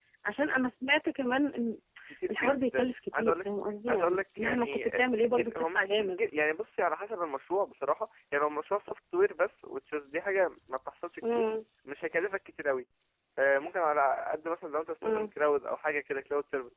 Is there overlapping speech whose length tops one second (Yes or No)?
Yes